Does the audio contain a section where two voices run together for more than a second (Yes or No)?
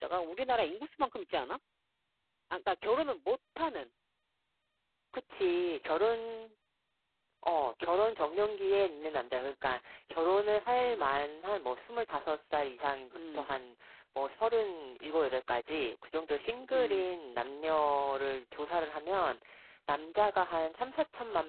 No